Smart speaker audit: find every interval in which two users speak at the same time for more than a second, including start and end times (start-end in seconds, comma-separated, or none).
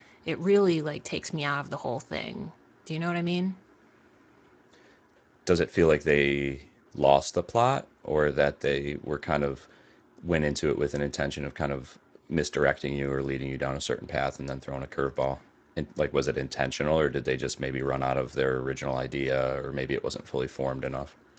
none